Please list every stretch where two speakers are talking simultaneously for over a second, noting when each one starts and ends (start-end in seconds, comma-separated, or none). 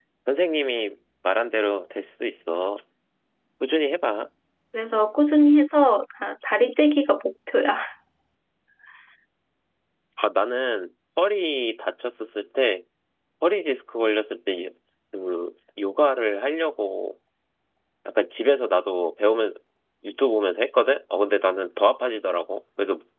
none